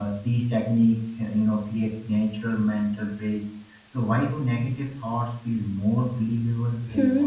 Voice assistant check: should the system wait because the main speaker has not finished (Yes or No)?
No